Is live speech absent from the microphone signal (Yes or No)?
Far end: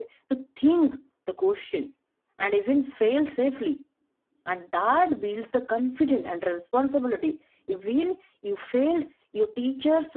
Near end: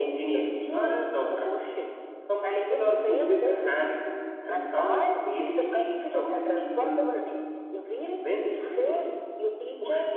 No